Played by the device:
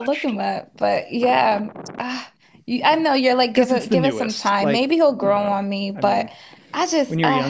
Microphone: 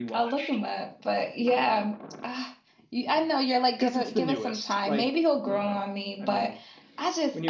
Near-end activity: none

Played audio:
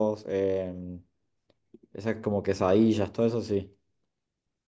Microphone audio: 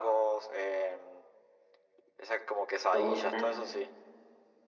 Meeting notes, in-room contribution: present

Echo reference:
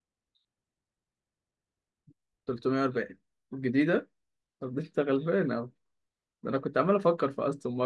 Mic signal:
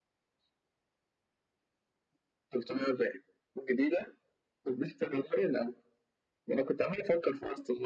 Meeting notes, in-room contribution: none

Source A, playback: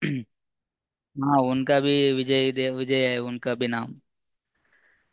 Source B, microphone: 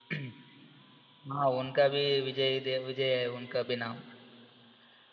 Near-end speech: none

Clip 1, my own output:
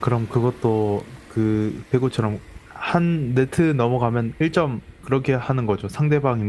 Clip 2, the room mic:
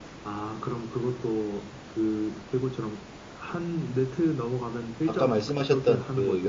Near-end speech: present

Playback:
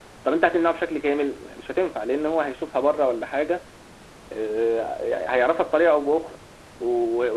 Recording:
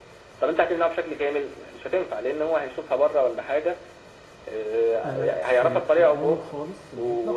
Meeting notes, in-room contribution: present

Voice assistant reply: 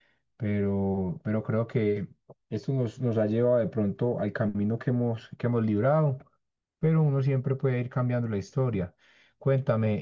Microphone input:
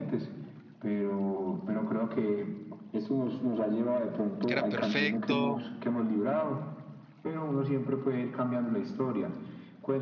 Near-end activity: present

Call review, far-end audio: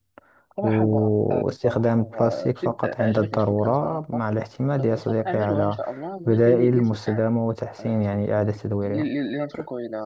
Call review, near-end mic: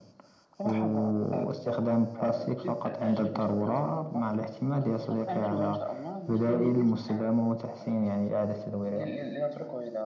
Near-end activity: none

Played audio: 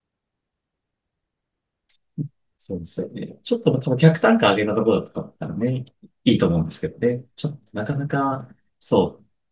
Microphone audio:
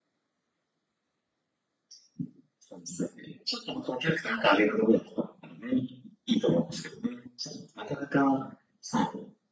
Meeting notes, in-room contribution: none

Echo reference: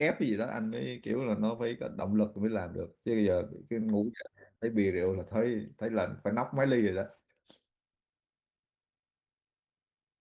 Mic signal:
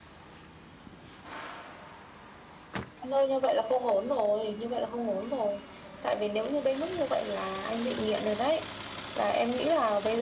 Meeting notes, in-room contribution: present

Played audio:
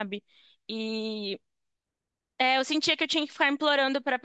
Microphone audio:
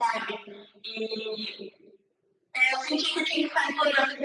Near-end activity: none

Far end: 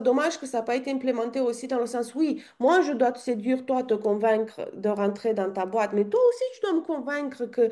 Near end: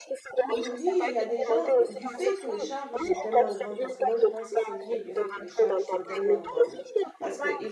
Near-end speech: present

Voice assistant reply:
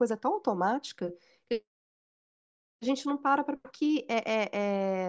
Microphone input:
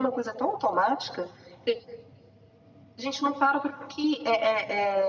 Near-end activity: none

